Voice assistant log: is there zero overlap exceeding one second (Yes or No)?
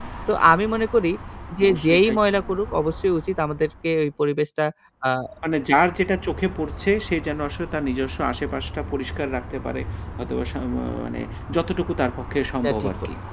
Yes